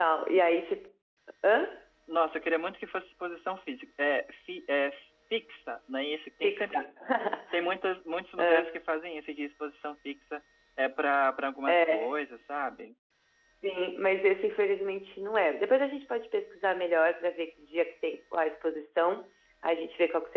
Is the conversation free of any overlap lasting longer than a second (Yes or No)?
Yes